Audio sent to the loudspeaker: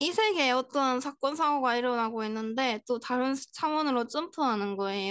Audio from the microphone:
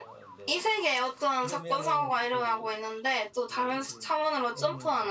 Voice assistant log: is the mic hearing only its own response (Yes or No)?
No